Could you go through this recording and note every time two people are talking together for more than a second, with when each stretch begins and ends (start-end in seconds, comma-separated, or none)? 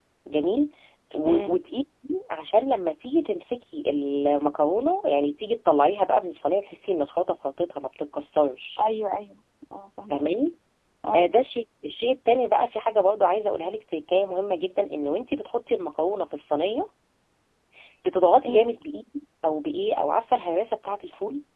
none